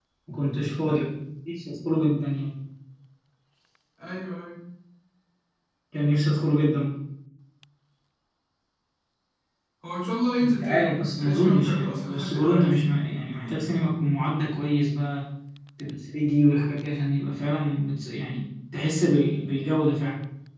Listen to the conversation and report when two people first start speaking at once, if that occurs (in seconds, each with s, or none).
10.4 s